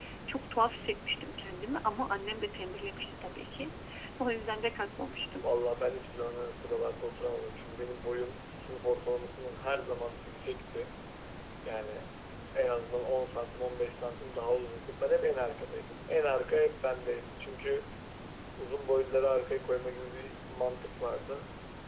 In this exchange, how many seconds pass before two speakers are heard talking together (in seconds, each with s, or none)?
none